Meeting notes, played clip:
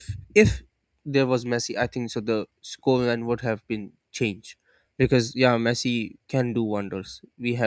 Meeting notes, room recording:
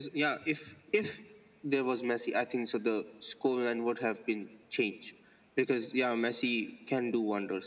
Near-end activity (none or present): none